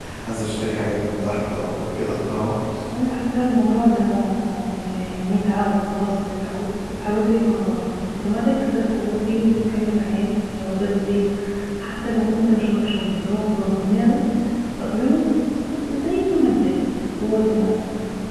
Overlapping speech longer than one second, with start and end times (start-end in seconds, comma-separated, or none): none